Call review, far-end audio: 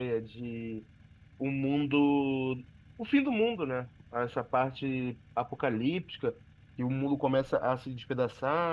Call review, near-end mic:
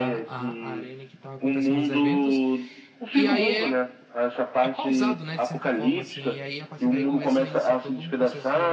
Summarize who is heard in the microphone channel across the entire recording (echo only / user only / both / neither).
both